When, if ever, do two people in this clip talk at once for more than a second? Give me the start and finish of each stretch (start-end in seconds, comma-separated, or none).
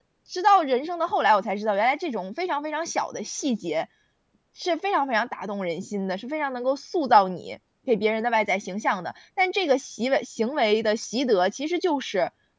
none